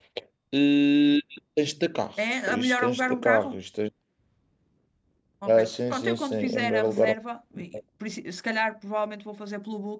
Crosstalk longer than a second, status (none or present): present